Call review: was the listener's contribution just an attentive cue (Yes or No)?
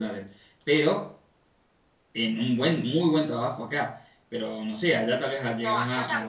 No